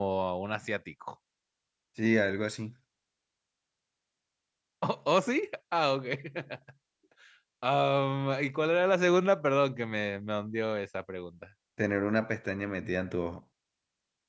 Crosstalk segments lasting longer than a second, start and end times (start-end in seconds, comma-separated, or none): none